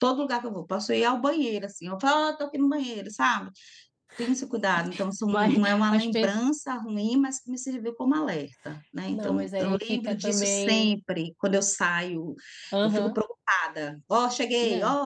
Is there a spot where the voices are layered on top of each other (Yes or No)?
Yes